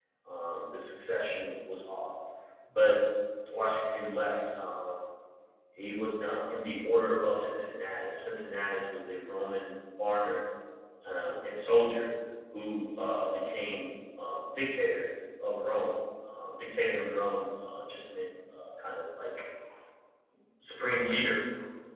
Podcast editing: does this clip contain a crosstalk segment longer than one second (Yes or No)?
No